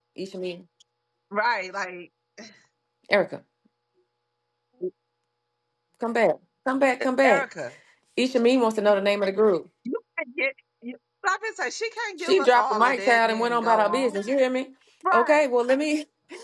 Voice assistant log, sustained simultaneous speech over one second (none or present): present